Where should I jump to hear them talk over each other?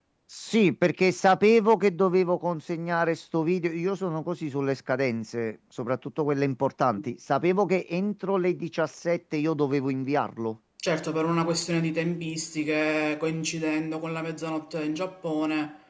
none

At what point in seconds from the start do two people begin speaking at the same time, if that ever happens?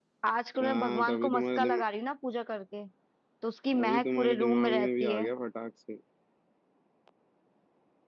1 s

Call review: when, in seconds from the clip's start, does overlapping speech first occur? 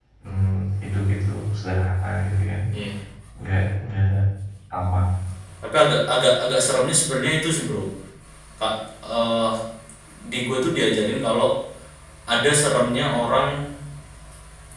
none

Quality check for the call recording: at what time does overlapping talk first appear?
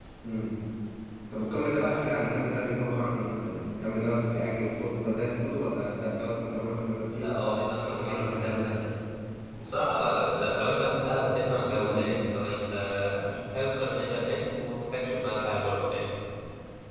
7 s

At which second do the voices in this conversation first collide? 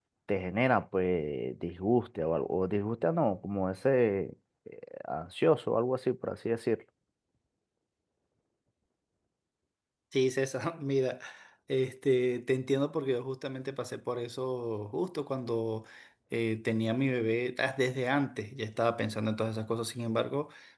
none

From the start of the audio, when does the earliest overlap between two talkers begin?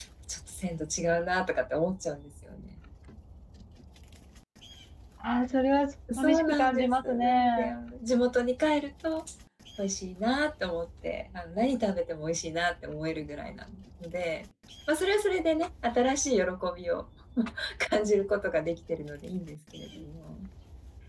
6 s

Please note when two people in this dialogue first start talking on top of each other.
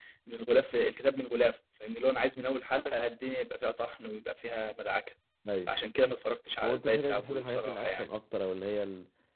7 s

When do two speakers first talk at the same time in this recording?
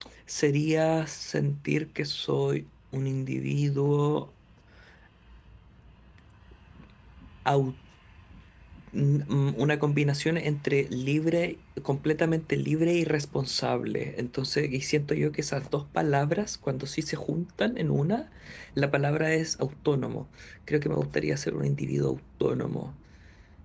none

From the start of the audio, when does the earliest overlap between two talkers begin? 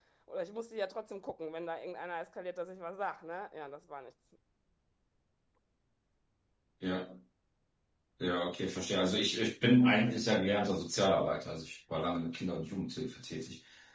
none

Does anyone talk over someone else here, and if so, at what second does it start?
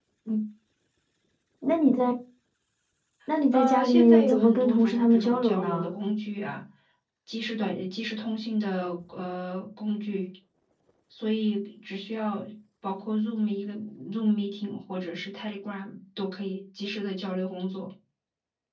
4 s

